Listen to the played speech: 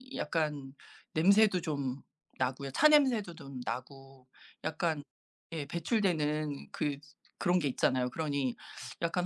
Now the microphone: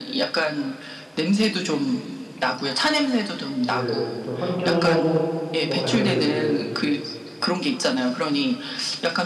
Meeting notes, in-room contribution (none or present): present